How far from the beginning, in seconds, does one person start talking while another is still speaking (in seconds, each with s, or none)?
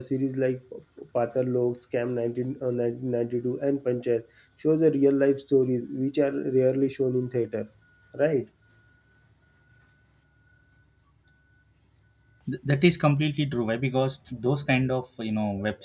none